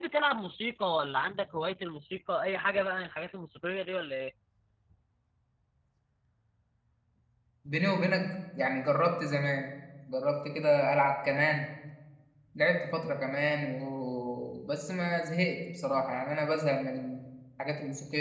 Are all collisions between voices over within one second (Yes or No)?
Yes